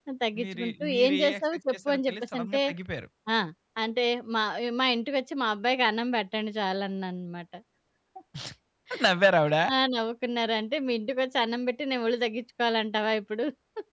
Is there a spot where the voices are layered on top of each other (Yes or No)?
Yes